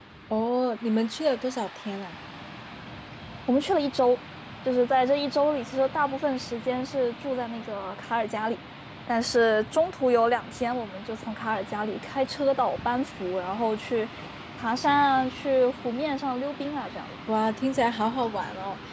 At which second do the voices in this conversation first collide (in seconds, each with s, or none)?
none